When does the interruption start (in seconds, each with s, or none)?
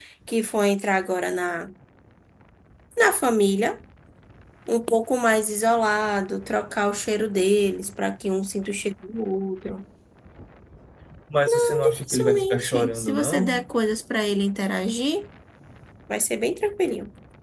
11.5 s